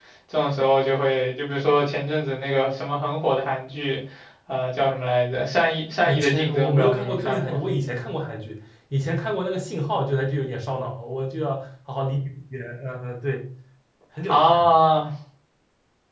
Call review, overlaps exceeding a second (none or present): present